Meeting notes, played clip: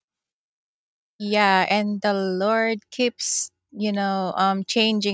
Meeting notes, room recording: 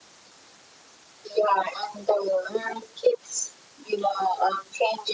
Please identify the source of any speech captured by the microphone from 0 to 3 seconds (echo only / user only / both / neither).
echo only